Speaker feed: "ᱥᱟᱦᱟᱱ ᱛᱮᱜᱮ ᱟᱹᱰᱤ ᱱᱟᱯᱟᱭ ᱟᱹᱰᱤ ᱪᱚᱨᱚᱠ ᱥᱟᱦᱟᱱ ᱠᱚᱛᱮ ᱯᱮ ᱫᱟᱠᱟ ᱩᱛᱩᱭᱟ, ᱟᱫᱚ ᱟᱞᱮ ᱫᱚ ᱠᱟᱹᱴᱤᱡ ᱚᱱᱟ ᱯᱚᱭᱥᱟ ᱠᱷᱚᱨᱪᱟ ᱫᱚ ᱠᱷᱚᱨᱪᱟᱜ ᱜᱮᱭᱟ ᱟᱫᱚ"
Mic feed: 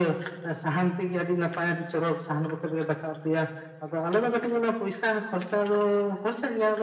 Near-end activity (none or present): none